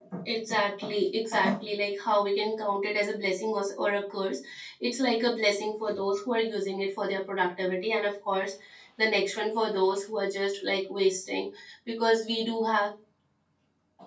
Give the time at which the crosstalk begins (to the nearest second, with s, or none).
none